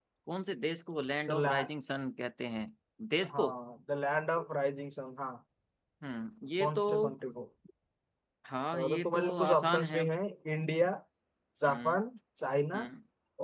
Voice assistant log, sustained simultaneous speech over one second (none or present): present